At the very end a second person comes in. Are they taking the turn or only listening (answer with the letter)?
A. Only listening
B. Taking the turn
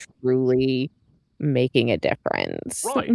B